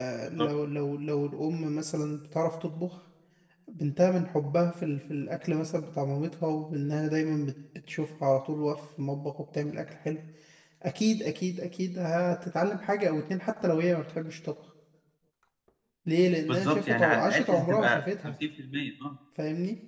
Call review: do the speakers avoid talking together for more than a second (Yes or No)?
No